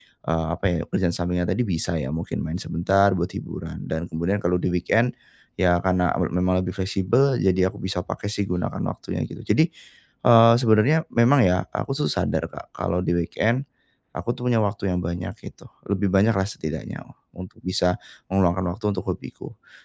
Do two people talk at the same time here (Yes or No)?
No